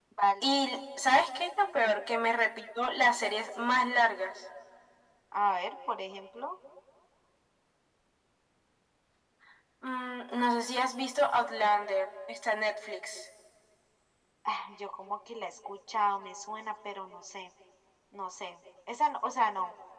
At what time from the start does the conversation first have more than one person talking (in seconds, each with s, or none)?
none